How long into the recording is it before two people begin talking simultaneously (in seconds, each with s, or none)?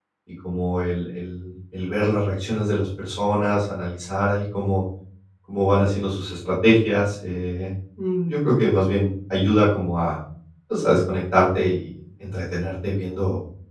none